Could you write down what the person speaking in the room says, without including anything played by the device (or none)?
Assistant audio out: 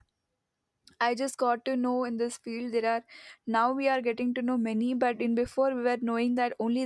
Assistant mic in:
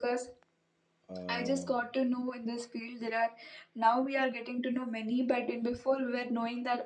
uh, uh,